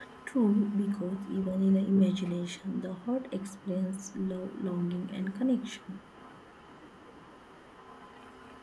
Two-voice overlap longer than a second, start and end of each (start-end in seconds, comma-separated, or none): none